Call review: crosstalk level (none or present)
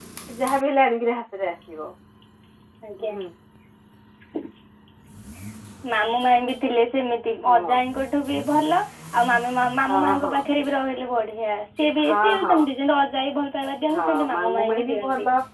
present